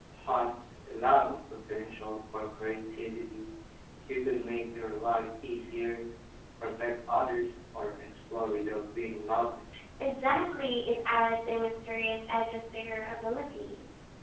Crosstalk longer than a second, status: none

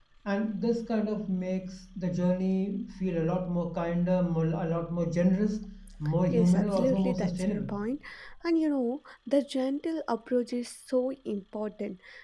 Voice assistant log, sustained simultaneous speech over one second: present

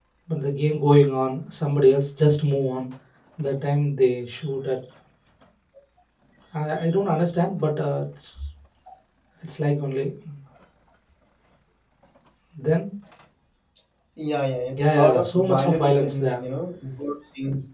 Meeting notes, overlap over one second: present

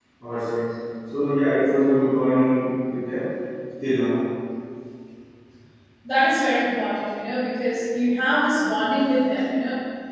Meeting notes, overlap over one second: none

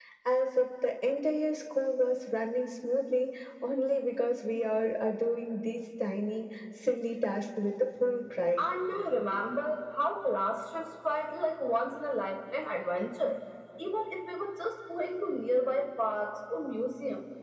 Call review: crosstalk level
none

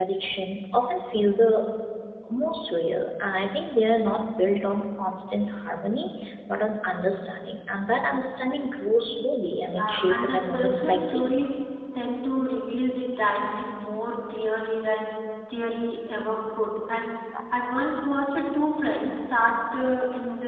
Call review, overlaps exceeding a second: present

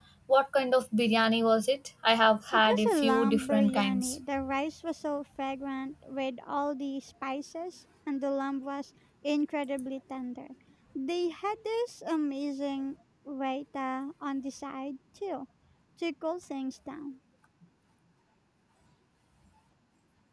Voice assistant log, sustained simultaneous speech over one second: present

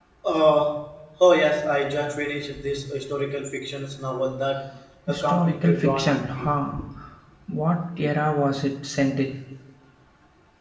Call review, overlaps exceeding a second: present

